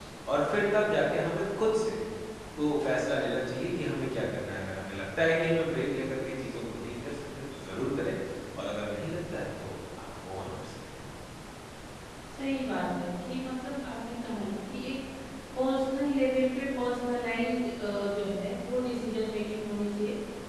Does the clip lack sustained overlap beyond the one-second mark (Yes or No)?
Yes